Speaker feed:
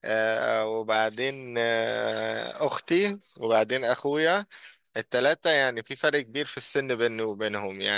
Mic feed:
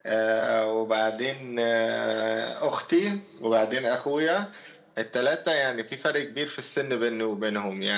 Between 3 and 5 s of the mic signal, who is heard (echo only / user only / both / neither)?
echo only